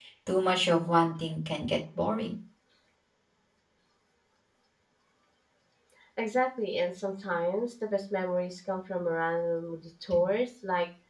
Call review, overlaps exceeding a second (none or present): none